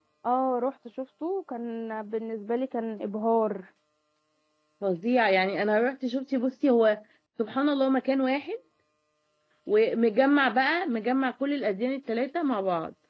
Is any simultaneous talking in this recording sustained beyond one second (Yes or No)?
No